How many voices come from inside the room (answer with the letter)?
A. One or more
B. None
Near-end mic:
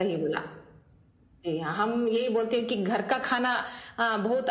B